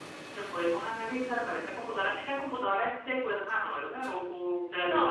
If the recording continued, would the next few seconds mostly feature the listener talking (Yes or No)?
Yes